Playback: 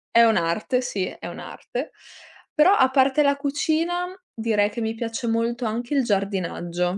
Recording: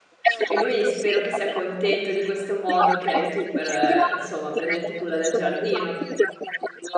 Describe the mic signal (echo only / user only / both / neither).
both